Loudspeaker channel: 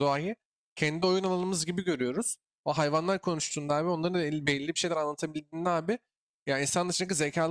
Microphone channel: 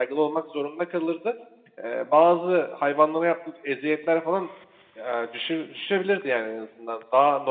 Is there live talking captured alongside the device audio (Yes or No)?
Yes